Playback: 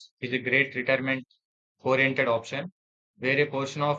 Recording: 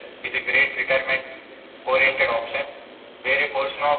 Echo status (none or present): present